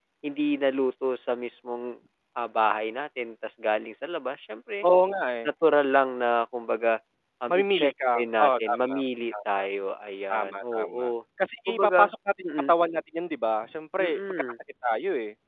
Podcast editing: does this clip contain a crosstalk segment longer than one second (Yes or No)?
Yes